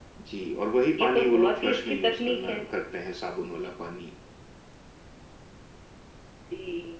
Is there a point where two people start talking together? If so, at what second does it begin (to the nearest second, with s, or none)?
1 s